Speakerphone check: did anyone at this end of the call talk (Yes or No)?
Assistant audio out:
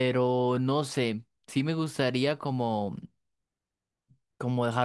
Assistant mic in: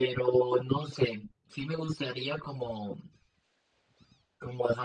No